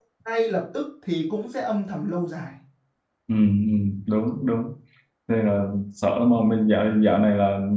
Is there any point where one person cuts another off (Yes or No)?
No